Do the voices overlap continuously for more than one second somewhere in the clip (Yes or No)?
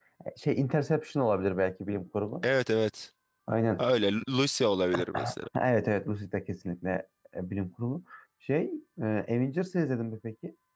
No